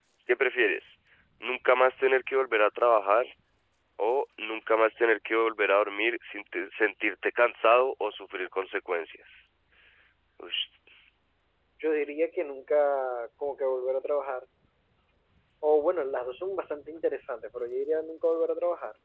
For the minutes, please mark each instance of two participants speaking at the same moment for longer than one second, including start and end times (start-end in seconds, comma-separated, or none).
none